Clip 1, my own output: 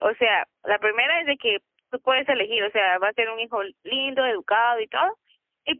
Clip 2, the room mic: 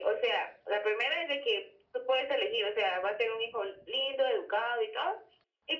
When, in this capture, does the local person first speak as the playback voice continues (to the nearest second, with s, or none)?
none